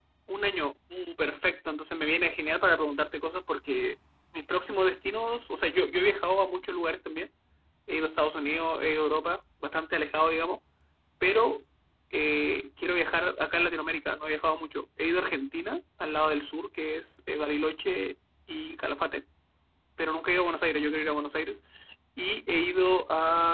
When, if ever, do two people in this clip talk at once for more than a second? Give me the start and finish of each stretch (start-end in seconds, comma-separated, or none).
none